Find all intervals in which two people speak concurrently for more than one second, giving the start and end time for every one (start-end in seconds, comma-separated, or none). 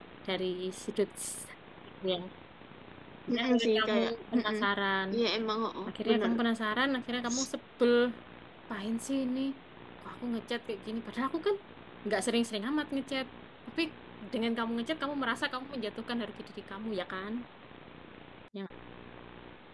3.3-4.5